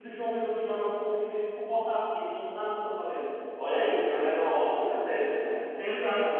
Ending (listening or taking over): taking over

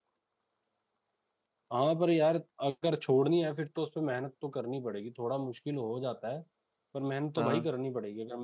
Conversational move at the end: listening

